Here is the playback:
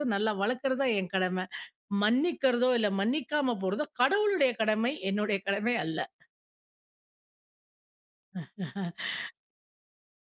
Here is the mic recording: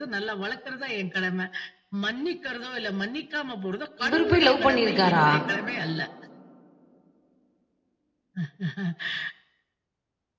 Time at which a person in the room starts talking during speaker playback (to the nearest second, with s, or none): 4 s